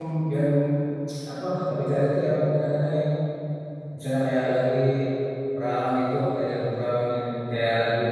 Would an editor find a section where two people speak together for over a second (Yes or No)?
No